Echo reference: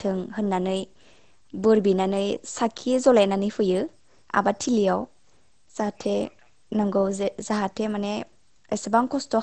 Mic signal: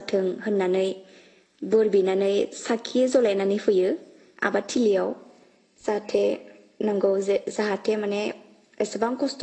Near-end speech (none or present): none